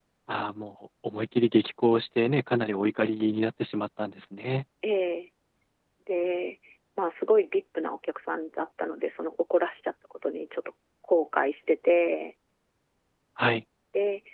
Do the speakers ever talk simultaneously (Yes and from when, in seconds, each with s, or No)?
No